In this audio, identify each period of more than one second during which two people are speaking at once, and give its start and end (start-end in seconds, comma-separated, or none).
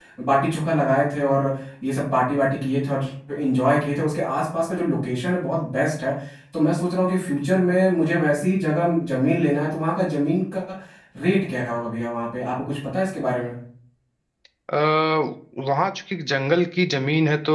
none